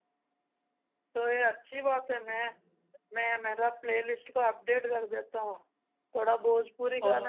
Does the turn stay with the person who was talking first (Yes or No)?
No